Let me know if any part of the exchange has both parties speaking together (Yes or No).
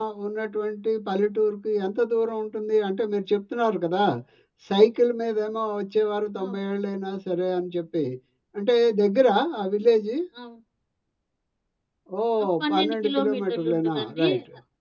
Yes